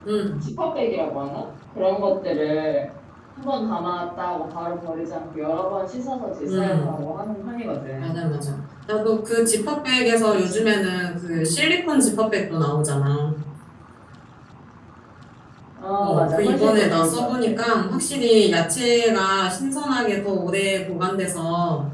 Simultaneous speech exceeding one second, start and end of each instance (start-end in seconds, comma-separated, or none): 16.0-18.1